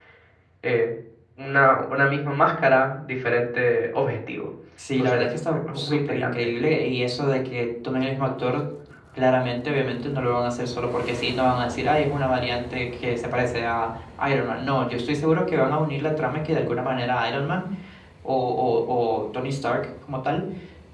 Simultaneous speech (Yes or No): Yes